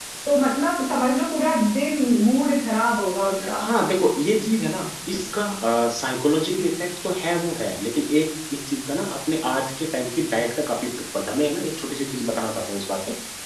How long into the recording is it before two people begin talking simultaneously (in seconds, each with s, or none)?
none